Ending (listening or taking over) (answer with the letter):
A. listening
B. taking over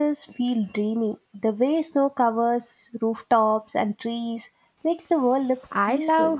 B